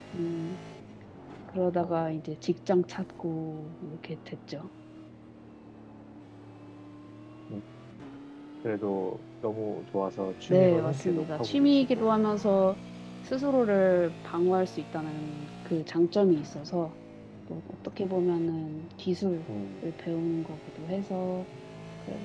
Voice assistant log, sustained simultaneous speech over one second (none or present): present